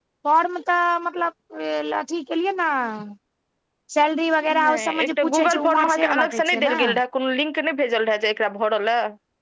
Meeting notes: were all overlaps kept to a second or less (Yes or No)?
No